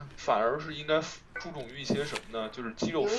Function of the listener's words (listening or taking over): listening